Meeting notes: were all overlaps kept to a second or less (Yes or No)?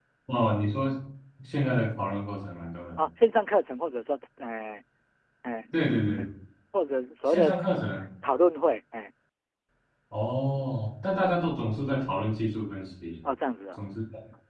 Yes